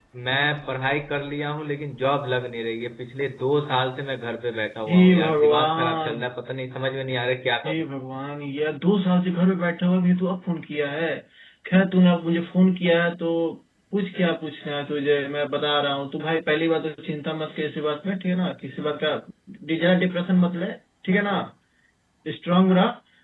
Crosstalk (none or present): present